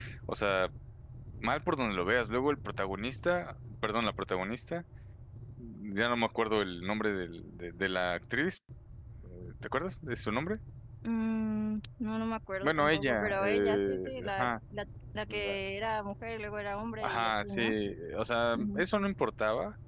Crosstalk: present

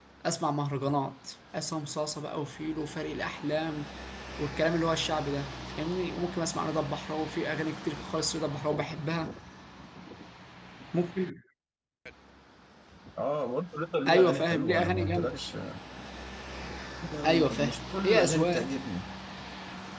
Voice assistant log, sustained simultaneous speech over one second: present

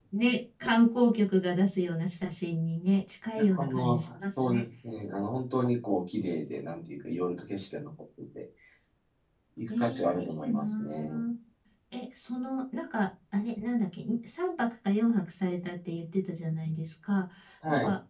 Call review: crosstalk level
present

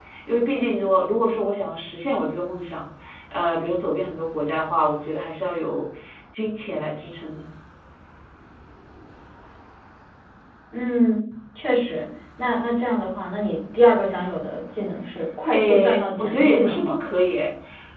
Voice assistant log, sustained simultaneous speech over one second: present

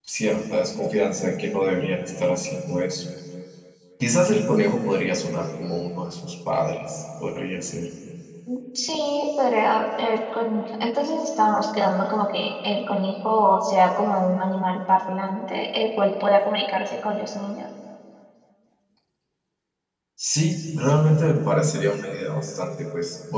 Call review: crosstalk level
none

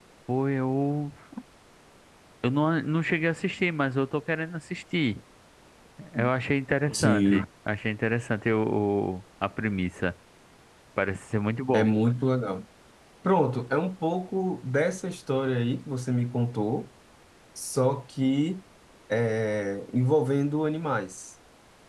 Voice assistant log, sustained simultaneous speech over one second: none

